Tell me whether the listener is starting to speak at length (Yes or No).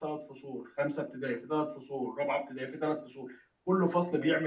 No